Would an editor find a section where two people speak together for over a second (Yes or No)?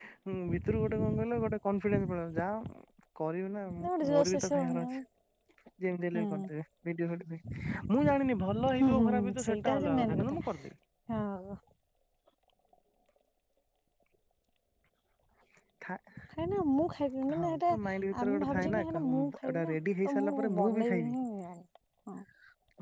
Yes